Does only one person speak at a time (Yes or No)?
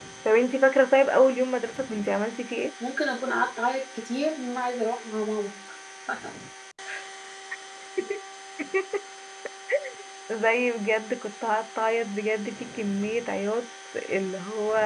Yes